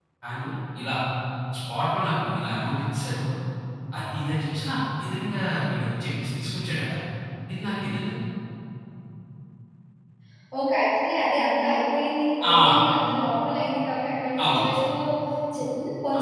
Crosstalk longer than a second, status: none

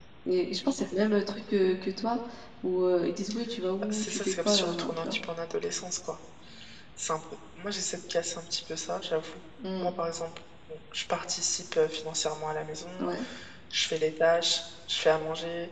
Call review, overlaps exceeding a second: present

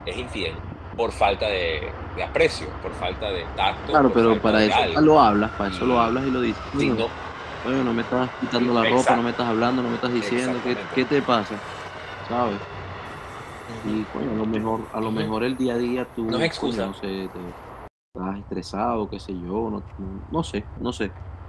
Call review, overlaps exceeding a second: present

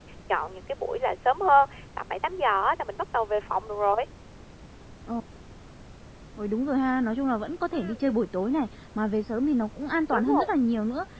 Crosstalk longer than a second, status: none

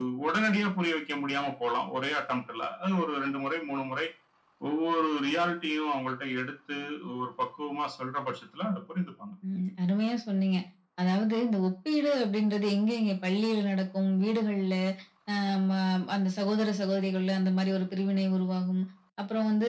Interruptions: none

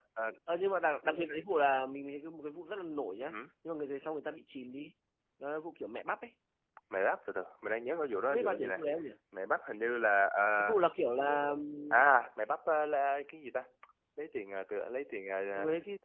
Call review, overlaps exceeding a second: none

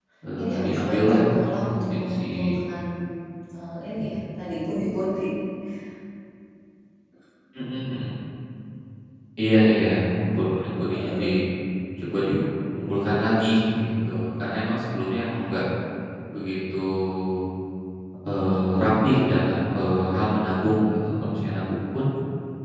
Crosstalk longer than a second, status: present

